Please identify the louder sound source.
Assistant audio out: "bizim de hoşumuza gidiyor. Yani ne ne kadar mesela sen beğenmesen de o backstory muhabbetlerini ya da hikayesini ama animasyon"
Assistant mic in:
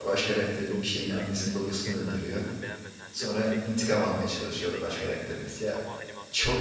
user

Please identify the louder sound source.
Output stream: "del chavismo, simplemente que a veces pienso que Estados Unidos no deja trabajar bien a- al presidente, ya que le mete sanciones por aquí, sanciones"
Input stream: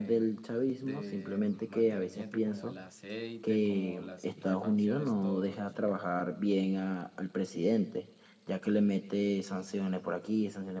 echo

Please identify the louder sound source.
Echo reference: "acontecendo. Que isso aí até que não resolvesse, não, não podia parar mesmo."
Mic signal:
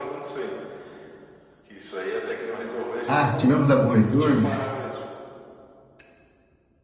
user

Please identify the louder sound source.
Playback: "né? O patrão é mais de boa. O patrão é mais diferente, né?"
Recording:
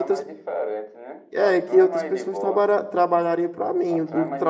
user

